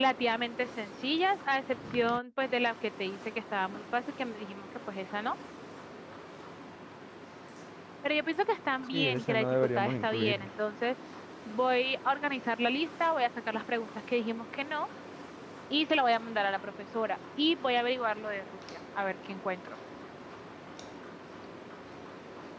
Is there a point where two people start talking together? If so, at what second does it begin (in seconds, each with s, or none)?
8.9 s